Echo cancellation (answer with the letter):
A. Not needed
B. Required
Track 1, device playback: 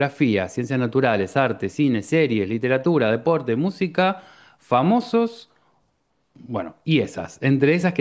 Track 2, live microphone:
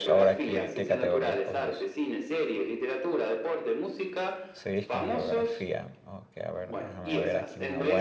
B